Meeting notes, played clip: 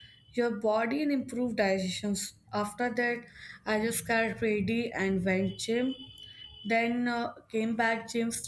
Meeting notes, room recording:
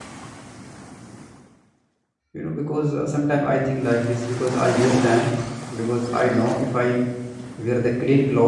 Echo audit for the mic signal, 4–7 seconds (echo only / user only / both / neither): user only